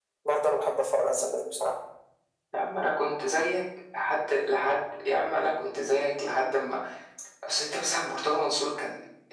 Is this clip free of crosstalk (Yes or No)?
Yes